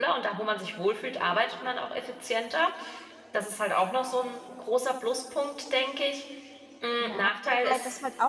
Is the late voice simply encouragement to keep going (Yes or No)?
No